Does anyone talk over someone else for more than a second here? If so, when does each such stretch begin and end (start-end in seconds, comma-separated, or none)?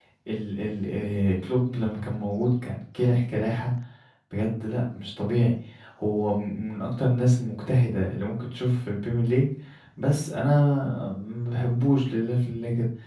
none